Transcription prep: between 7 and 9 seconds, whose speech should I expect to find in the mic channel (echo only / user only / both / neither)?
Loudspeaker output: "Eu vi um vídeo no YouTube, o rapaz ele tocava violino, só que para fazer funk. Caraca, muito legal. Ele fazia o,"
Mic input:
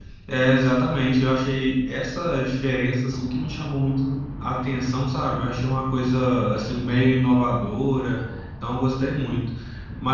user only